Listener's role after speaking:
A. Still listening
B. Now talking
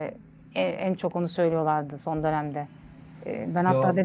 A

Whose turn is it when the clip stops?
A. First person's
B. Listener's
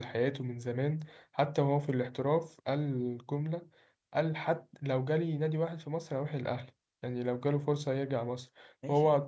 A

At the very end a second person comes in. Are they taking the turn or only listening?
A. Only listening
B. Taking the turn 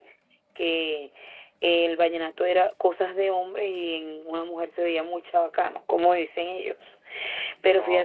A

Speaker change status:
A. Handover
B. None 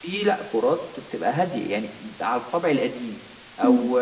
B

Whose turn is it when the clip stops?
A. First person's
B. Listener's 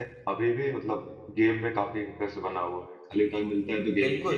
B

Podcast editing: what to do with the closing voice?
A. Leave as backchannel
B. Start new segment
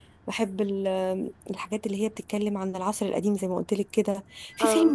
A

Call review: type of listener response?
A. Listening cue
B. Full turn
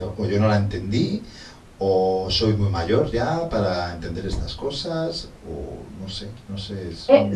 B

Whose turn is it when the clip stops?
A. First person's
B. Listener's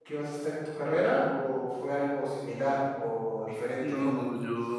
B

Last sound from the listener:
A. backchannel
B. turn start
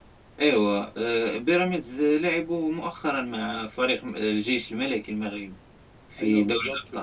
B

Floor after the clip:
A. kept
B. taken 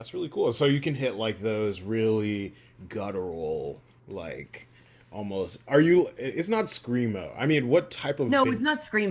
B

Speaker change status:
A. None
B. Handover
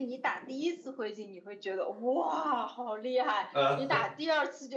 A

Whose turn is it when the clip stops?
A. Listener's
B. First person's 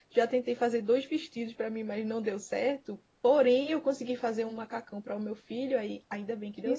A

